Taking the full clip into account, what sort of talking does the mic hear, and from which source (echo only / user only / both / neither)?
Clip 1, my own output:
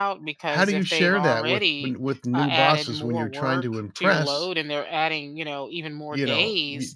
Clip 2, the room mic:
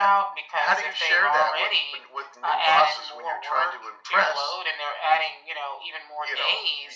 echo only